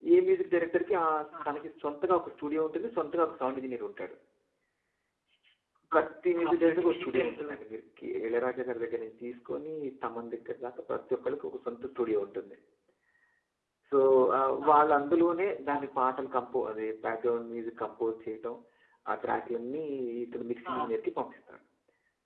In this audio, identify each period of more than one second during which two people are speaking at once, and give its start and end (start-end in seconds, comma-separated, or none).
6.4-7.6